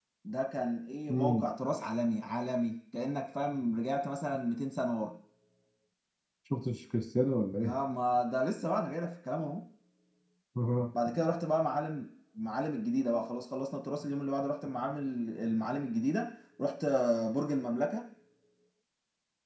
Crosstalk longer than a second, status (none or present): none